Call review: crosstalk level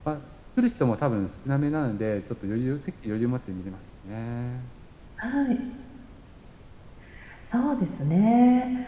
none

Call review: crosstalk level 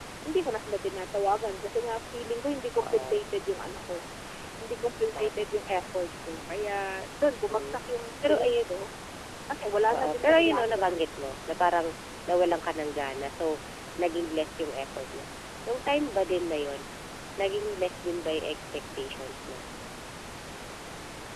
present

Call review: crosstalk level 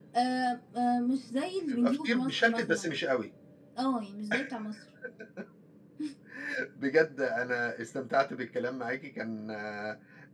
present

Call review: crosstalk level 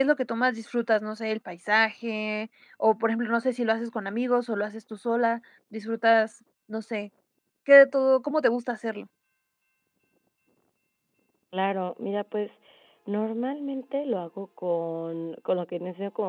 none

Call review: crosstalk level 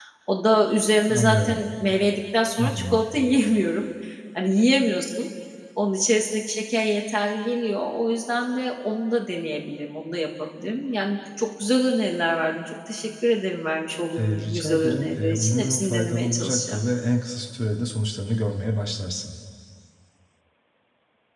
present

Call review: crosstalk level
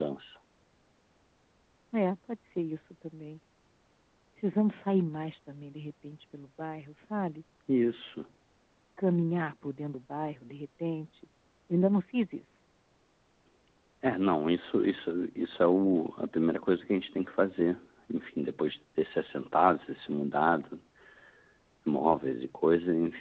none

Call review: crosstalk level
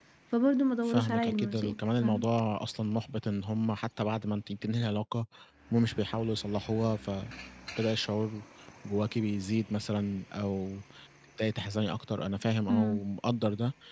present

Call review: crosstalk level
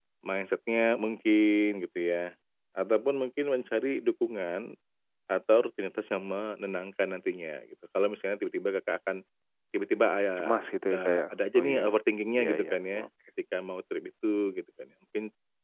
present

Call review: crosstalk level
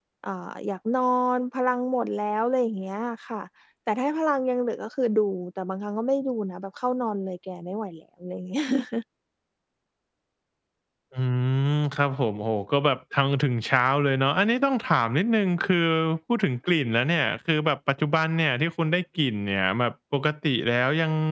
none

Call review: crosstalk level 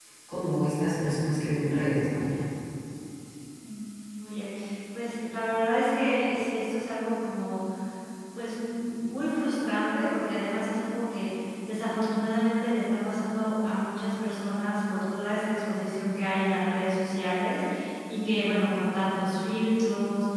none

